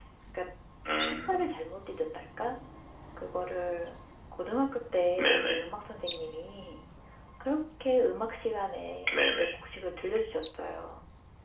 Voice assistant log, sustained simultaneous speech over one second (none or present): none